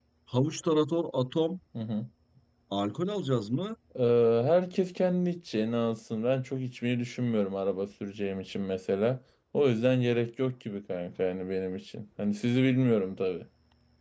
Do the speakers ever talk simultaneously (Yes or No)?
No